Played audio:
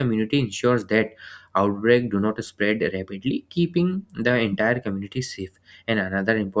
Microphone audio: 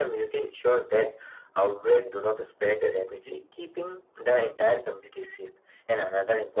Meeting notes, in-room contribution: none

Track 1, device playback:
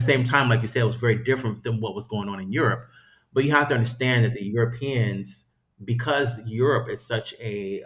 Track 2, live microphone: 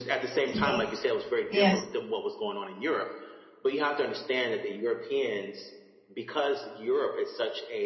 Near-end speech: present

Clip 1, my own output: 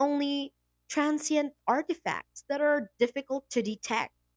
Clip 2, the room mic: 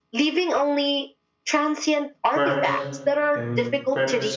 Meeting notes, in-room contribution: present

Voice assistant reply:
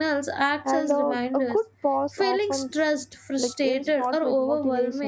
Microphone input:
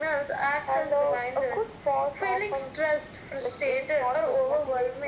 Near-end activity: none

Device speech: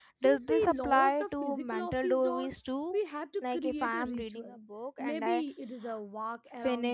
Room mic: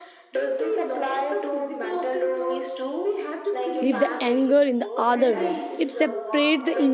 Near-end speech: present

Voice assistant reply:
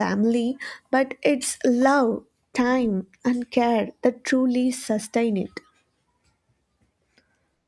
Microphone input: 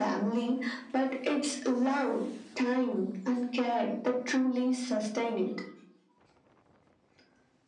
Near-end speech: none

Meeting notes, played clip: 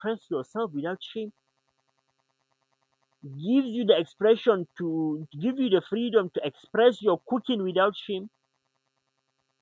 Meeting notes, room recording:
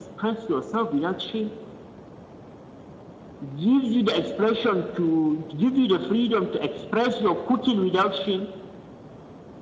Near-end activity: none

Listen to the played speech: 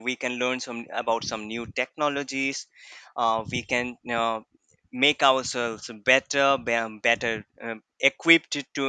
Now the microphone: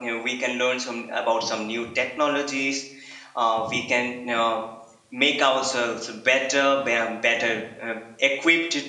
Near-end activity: none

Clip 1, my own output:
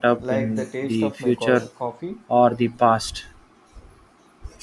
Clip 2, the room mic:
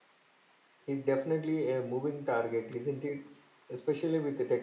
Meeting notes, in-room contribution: present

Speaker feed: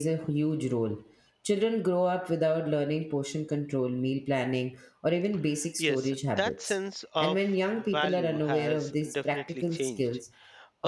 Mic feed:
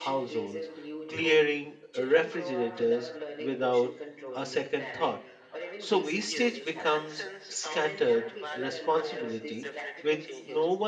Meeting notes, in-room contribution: present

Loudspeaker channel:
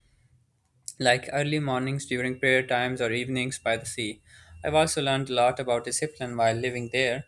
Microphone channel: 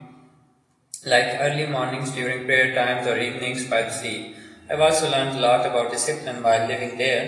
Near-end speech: none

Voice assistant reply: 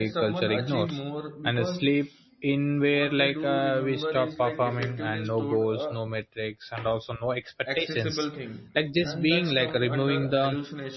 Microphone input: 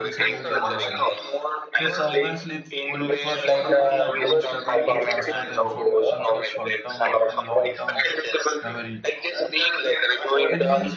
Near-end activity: present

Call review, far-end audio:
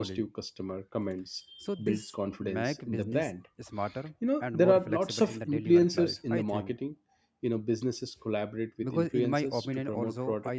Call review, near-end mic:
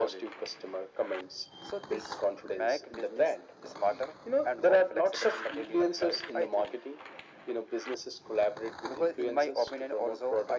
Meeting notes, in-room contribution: none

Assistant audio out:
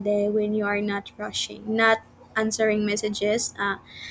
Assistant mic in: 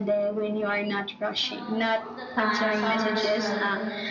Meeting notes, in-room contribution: present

